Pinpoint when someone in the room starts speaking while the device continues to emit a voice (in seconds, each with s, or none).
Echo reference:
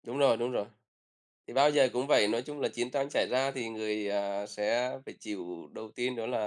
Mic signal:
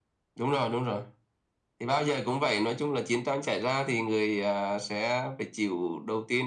none